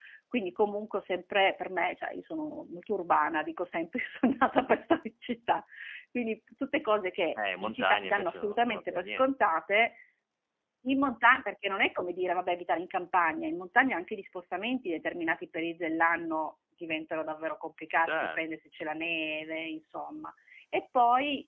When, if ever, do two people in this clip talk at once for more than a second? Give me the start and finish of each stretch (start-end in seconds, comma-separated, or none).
7.6-9.3